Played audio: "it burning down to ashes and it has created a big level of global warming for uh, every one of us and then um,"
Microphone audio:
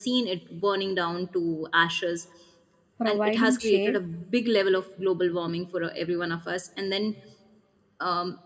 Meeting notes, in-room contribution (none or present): present